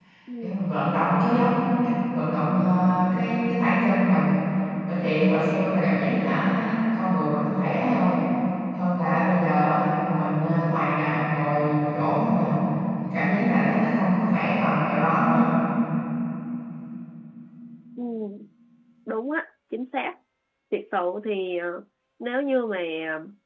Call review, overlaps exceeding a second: none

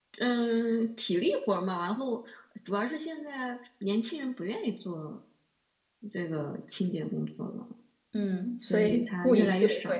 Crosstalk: present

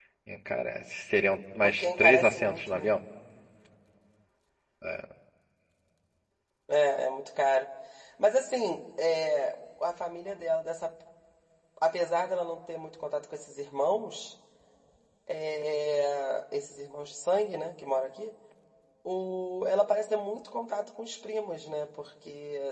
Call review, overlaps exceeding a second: present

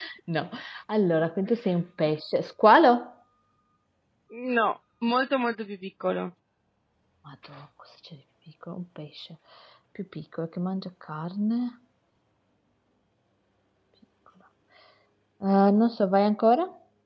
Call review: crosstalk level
none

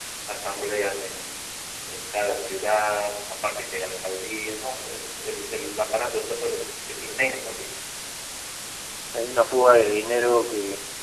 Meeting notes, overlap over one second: none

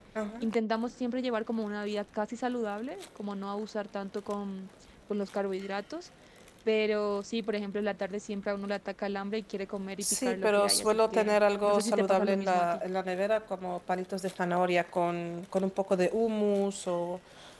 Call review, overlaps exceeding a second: present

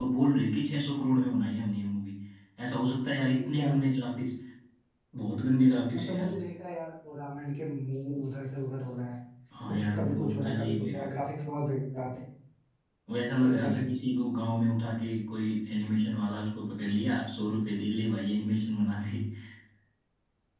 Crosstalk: present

